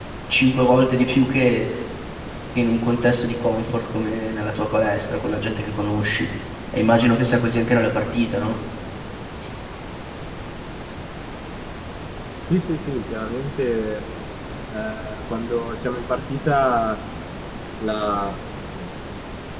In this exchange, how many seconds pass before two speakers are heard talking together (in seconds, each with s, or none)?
none